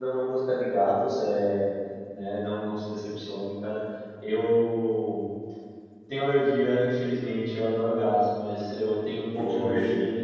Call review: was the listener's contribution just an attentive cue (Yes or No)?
Yes